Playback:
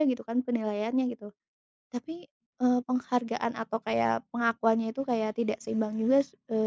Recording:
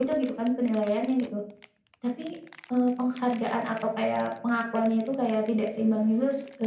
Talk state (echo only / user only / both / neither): echo only